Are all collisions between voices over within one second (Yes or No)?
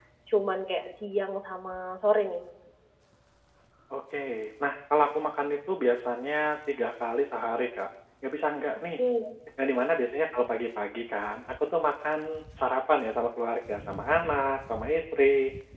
Yes